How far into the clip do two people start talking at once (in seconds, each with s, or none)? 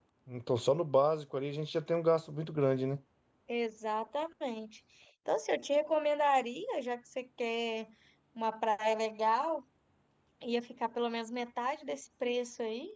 none